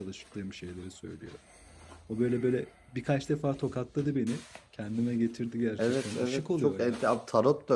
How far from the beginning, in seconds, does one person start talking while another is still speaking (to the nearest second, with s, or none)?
6 s